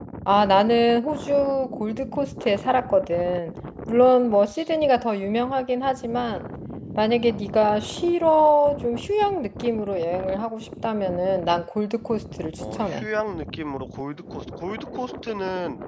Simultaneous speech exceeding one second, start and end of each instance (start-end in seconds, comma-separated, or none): none